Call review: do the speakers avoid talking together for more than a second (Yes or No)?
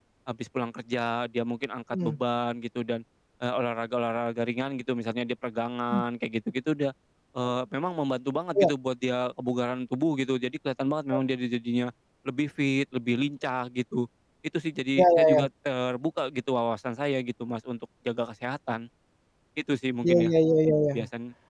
Yes